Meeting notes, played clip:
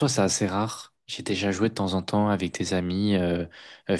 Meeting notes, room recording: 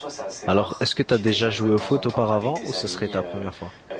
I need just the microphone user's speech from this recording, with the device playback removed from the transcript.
Alors, est-ce que tu as déjà joué au foot auparavant ou ce serait ta première fois?

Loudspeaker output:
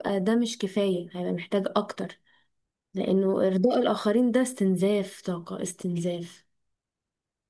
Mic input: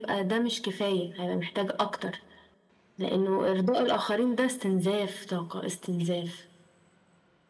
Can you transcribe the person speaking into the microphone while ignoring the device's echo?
none

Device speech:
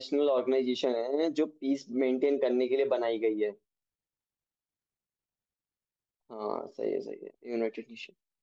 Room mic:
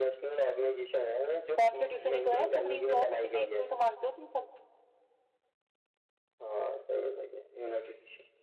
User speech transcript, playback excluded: कॉन्स्टिट्यूशन ही तो है सुप्रीम लॉ ऑफ इंडिया इसको ही तो मानते हो तुम सब

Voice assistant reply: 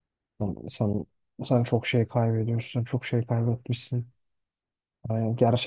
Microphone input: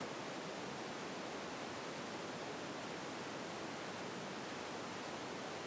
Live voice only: none

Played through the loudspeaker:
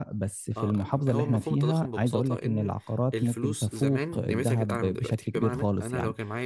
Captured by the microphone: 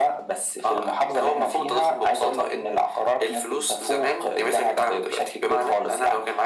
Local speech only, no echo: none

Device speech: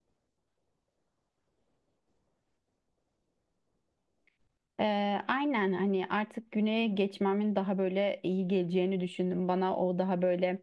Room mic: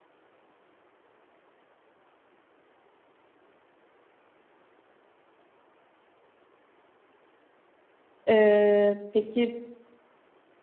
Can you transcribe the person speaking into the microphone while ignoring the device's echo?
E, peki

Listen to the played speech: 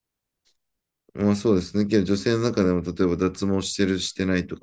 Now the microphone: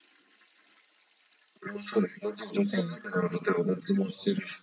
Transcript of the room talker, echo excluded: うん。

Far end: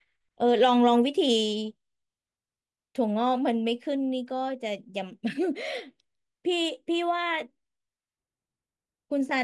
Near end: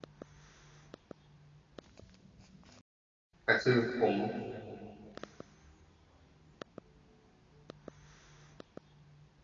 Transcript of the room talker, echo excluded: แต่คือผม

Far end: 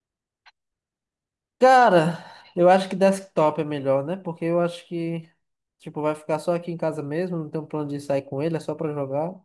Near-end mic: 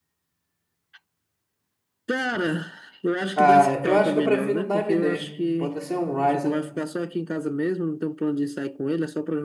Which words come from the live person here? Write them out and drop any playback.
Ah, eu acho que eu prefiro um da AMD. Pode ser um Ryzen.

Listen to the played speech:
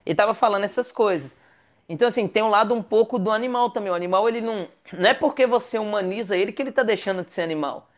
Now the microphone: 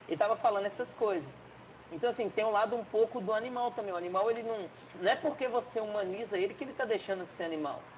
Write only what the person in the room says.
none

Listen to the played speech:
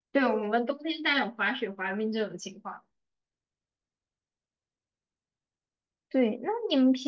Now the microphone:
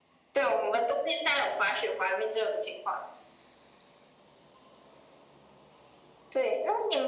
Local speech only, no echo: none

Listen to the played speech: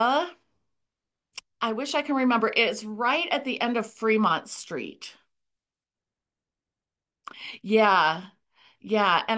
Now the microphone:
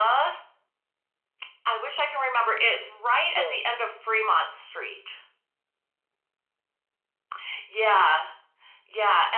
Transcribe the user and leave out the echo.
So

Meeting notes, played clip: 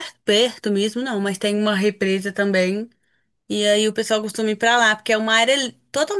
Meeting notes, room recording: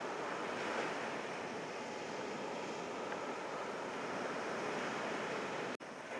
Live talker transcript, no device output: none

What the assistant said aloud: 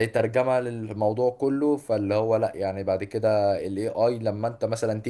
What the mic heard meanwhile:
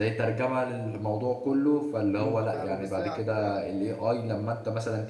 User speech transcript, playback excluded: امم فاهمك بس هي على فكره

